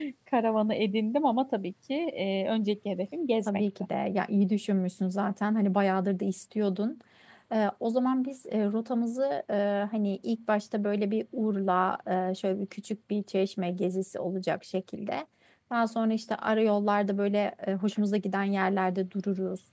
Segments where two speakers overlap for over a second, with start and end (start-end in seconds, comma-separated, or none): none